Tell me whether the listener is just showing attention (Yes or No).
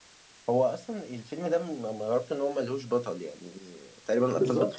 No